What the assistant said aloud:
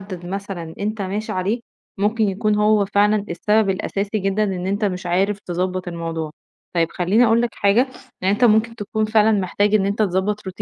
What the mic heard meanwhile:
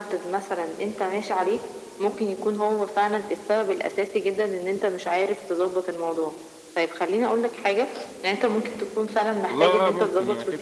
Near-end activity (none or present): present